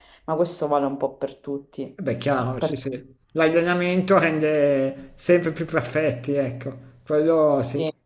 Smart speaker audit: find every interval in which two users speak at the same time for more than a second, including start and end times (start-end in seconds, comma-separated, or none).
none